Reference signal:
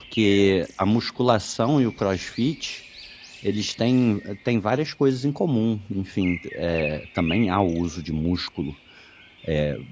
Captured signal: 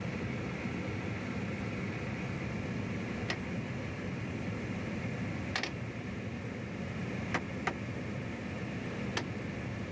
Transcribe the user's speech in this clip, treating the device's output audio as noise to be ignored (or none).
none